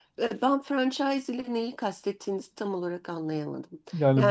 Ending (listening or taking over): taking over